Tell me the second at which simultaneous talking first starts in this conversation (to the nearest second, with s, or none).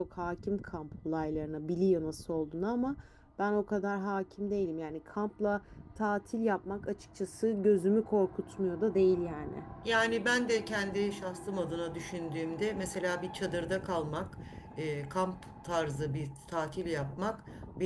none